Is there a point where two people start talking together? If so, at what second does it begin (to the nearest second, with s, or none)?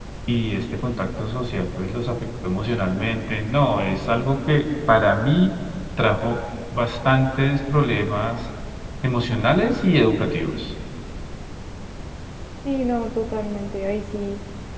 none